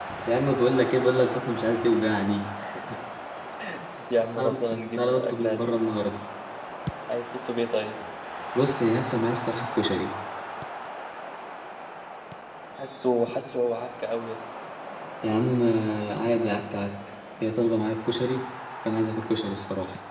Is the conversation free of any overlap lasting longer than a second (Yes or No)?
No